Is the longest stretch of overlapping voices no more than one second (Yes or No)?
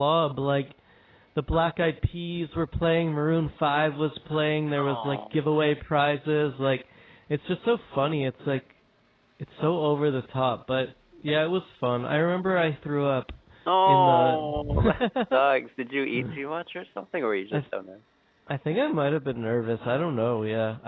No